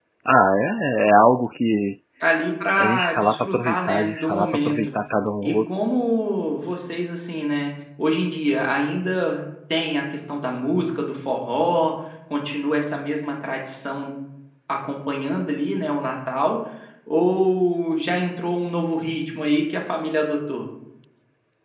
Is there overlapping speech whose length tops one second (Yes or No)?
Yes